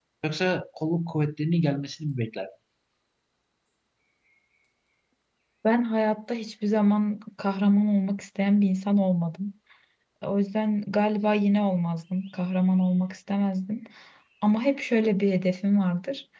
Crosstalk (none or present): none